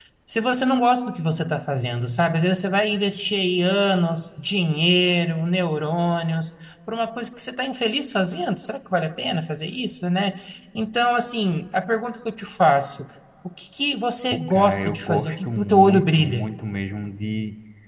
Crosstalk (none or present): present